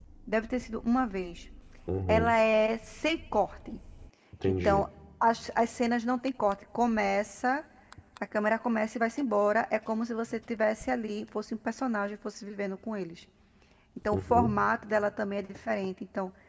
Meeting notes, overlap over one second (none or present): none